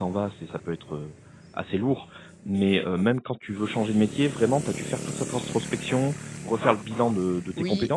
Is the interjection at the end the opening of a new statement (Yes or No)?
Yes